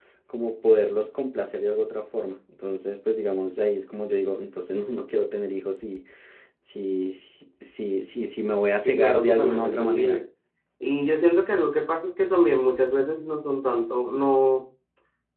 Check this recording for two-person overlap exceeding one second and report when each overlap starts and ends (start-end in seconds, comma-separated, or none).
8.8-10.2